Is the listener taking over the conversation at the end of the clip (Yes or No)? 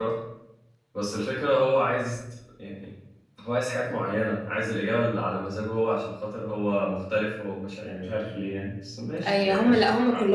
Yes